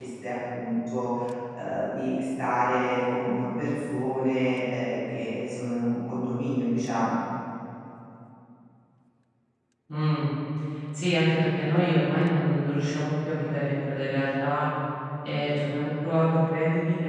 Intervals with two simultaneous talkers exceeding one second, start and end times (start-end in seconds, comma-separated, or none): none